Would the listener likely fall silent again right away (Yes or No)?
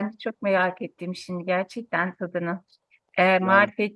Yes